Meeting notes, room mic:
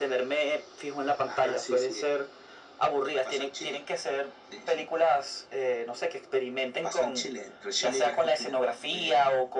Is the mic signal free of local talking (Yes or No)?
Yes